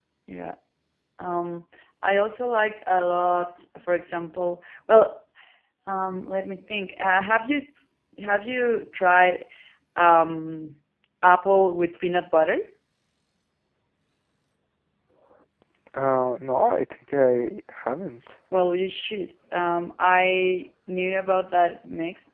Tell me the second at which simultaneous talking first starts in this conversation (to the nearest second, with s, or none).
none